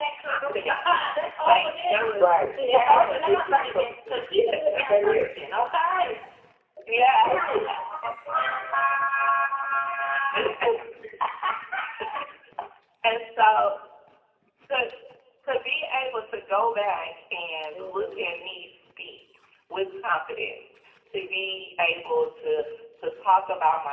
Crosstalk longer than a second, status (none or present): present